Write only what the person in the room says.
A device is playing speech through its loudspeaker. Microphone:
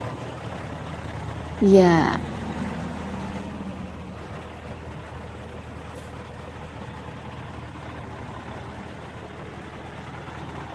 Iya.

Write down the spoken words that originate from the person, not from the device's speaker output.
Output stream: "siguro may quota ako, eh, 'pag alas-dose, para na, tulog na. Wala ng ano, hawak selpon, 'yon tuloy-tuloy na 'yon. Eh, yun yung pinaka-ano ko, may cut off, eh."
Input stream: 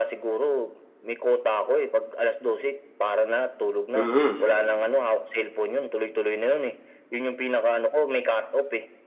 Mm.

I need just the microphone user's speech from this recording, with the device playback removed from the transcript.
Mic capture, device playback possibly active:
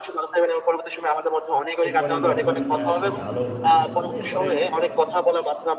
এরপরে যখন আ সে ভালো হতে শুরু করলো, এরপরে

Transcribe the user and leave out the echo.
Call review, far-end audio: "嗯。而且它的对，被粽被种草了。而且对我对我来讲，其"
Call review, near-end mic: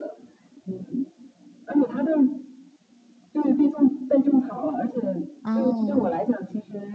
哦。

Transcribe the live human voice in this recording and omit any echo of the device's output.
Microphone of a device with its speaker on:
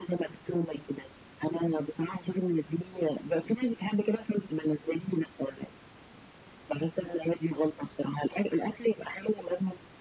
none

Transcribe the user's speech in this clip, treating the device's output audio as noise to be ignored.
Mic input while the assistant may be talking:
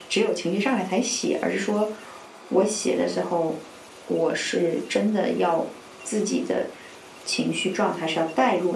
none

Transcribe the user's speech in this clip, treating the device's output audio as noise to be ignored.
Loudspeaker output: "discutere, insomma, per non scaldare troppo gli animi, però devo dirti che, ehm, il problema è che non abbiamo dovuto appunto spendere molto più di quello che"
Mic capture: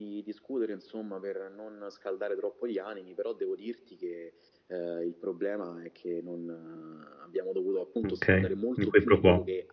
Okay, un qui pro quo.

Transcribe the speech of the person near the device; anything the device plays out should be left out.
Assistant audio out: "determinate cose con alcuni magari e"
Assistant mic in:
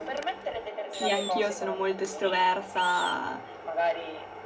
Sì anch'io sono molto estroversa,

